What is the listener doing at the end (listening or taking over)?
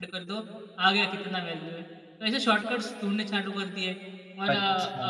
taking over